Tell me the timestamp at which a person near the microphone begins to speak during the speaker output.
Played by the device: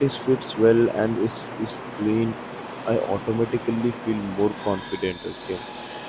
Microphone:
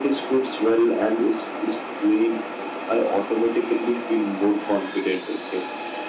none

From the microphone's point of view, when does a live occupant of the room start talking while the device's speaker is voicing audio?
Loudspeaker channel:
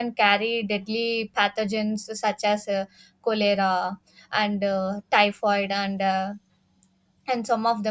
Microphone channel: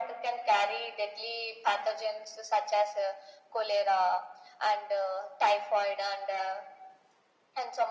none

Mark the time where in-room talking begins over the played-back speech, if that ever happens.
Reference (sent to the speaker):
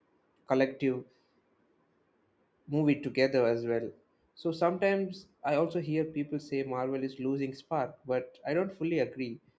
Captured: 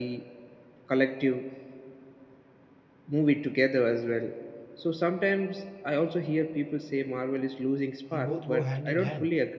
8 s

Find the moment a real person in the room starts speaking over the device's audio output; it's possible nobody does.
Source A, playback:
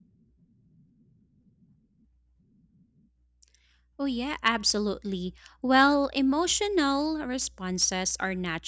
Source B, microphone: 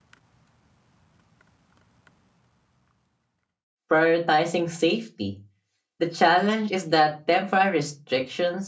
4 s

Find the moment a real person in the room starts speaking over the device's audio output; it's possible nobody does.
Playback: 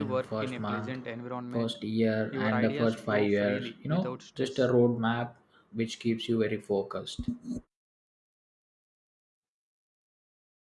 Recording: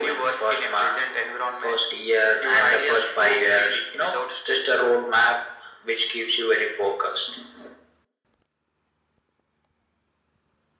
none

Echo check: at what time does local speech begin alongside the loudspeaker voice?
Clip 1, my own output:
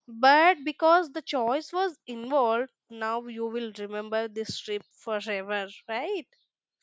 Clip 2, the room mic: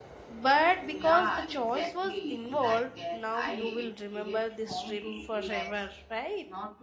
1 s

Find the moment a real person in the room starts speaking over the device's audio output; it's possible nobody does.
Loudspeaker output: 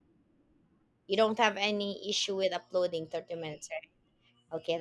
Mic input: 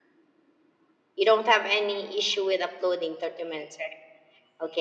none

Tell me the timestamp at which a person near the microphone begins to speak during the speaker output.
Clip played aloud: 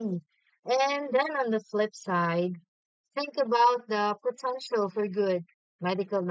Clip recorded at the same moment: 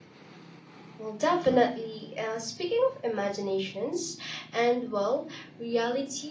1 s

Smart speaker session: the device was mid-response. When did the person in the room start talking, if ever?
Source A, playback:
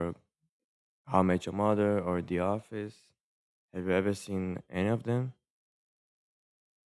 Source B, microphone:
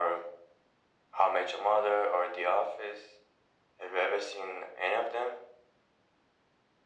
none

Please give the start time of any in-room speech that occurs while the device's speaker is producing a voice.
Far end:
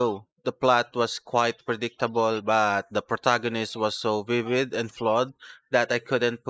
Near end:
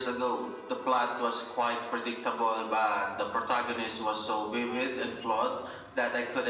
none

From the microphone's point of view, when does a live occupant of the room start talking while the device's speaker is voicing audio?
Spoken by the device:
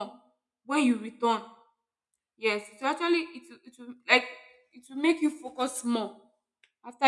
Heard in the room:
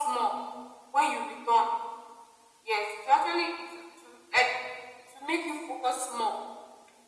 none

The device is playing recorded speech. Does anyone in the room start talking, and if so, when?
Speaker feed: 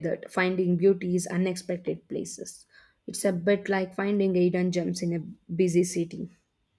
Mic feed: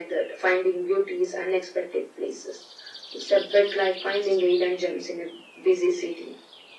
none

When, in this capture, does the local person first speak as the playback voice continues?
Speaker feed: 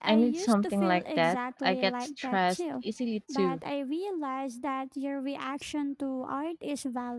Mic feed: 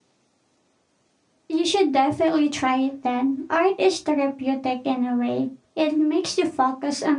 1 s

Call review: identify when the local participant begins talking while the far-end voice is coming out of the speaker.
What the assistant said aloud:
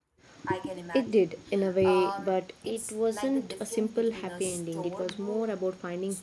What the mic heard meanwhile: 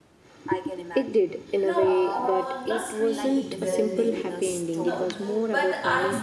2 s

